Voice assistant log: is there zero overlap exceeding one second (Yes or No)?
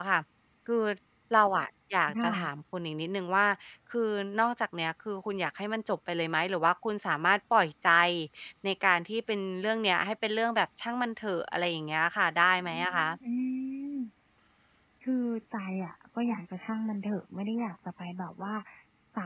Yes